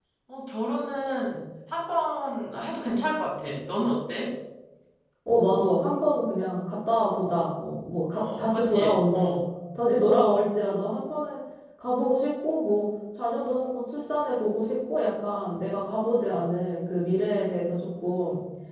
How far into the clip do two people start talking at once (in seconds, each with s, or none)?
8.1 s